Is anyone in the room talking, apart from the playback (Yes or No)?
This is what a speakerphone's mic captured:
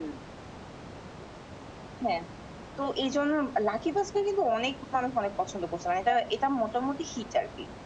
No